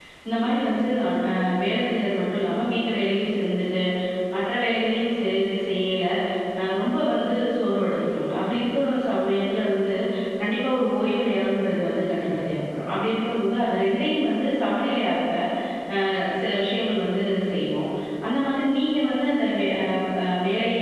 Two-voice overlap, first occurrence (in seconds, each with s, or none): none